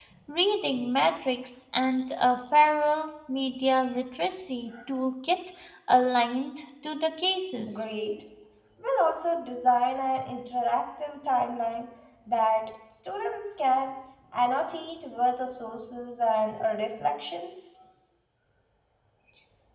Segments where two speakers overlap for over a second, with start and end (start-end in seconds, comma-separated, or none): none